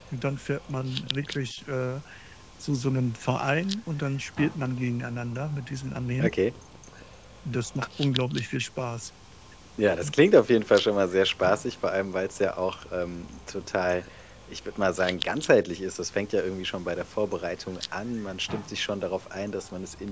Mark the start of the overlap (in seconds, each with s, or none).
none